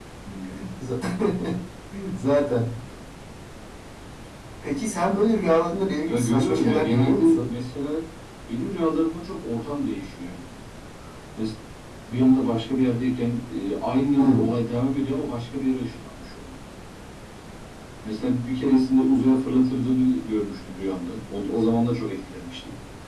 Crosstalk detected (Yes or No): Yes